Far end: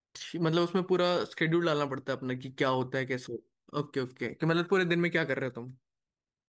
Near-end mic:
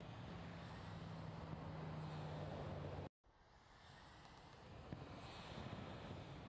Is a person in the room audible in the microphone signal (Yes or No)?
No